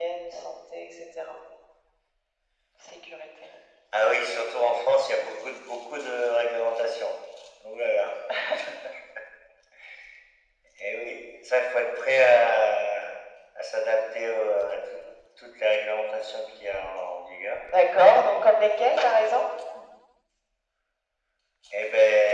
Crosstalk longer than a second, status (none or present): none